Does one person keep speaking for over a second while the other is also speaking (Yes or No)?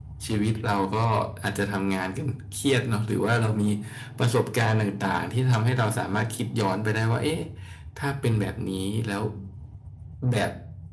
No